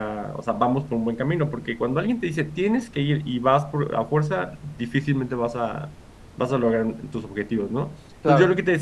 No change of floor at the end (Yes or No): Yes